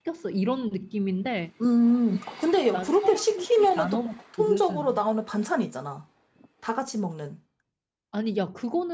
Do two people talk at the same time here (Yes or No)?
Yes